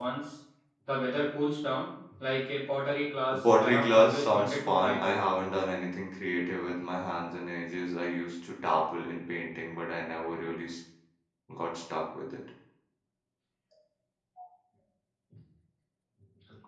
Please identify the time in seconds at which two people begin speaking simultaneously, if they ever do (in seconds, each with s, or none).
3.6 s